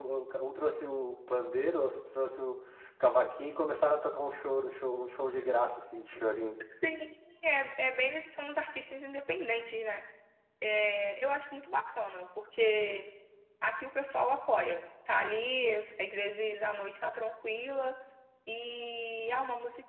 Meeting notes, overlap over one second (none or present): none